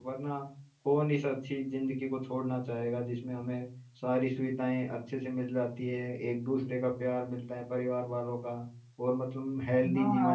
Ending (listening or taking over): taking over